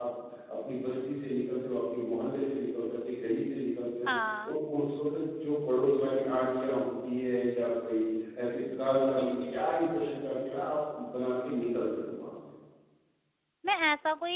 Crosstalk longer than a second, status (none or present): none